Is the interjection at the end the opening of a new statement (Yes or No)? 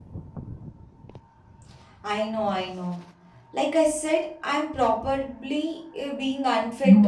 Yes